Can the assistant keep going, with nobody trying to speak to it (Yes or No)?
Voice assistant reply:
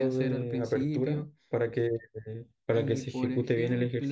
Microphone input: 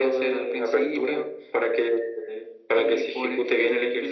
Yes